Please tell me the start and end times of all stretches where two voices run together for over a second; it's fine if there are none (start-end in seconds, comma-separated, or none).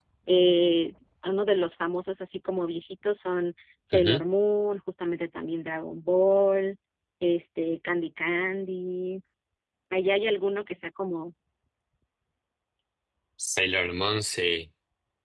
none